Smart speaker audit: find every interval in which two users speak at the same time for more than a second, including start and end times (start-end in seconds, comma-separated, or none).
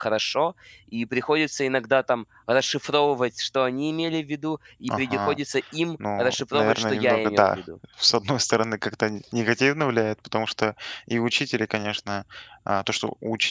6.2-7.6